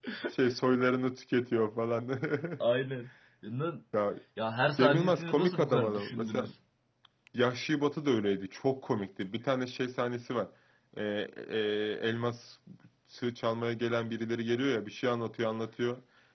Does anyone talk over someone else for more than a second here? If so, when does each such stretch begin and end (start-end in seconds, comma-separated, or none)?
4.8-6.5